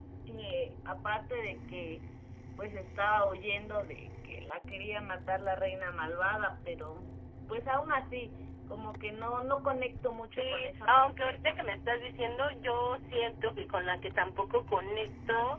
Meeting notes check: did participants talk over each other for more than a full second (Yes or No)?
Yes